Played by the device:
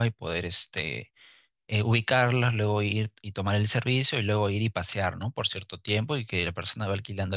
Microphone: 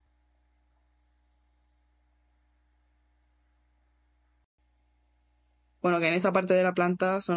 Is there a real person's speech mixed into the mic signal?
Yes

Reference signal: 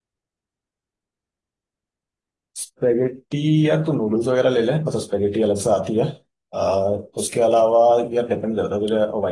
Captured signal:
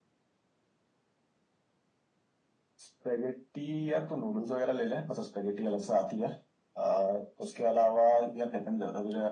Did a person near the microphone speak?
No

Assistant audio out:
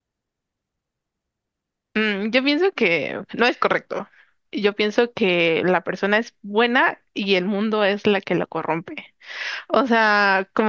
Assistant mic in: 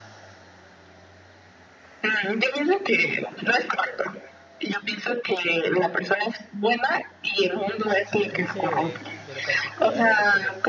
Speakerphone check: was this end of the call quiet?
No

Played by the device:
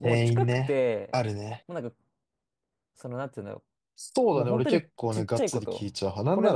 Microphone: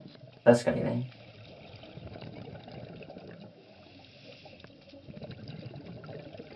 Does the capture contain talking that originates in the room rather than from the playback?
Yes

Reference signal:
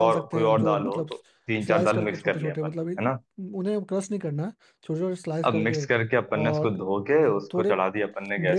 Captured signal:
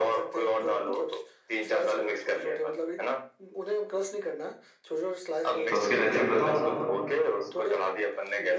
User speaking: Yes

